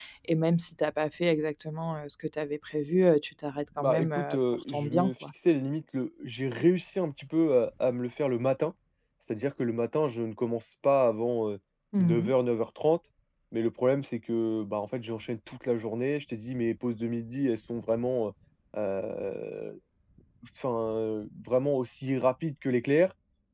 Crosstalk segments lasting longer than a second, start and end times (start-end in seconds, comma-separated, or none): 3.8-5.3